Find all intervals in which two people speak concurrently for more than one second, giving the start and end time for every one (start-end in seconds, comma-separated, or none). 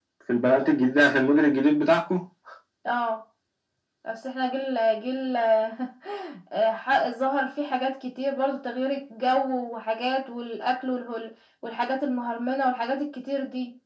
none